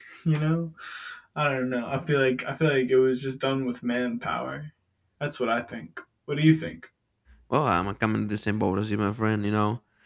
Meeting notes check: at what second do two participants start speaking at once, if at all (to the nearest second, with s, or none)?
none